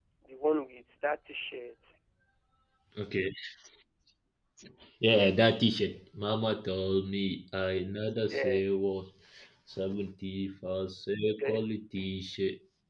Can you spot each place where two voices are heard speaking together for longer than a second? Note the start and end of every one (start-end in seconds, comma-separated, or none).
none